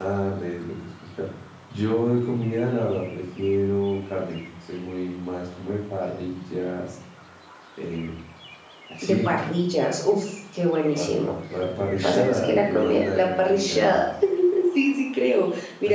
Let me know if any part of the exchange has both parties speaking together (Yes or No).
Yes